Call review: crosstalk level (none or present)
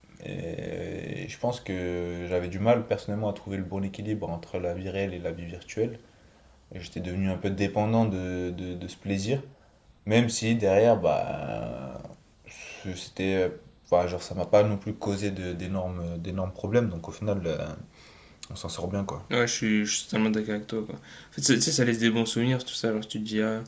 none